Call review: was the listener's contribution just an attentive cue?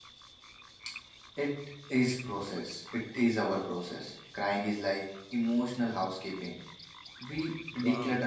No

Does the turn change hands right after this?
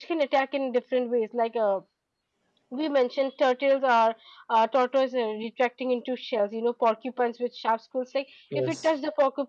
No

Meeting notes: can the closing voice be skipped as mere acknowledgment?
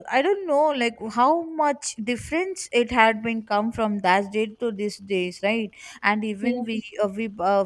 Yes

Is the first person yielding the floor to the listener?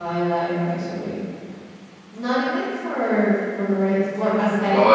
No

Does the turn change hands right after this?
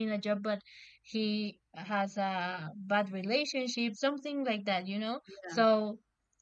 No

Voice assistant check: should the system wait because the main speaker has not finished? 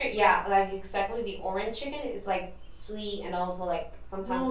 No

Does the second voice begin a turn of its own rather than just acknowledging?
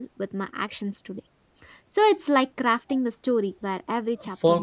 Yes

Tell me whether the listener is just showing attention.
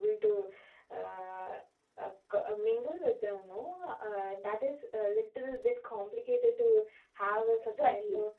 No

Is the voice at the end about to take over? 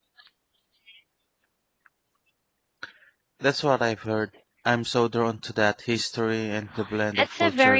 Yes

